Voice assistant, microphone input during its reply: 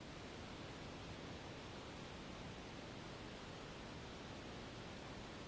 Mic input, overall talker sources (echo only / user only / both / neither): neither